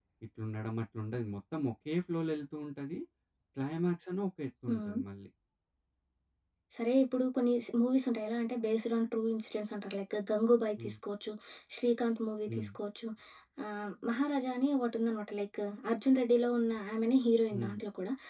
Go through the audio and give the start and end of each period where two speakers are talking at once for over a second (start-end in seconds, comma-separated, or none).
none